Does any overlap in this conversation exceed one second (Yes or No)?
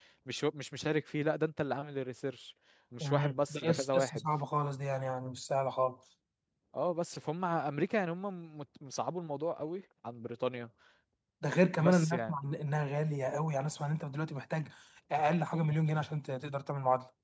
Yes